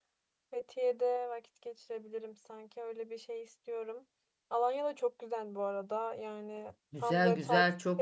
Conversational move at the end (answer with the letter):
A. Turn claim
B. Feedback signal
A